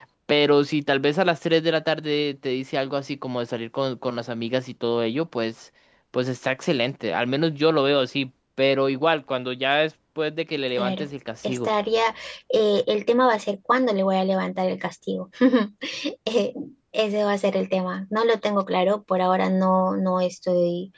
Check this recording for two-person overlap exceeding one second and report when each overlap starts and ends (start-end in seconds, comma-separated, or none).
none